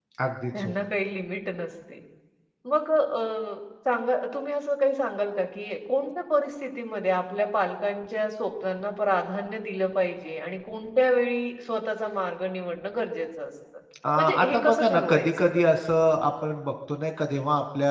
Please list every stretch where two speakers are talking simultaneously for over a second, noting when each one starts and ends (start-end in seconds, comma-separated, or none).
14.2-15.5